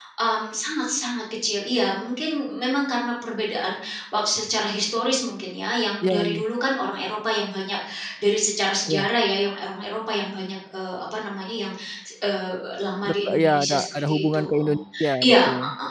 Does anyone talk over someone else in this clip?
Yes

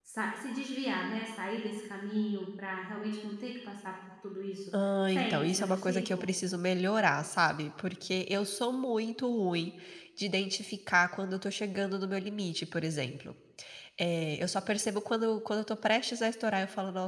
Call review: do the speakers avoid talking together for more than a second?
No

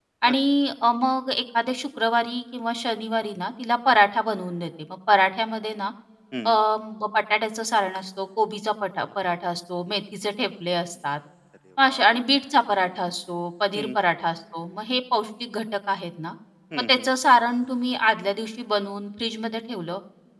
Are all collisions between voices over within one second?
Yes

